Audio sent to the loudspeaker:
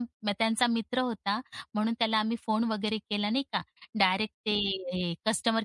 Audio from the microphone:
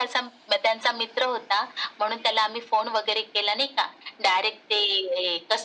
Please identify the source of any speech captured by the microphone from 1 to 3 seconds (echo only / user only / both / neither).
echo only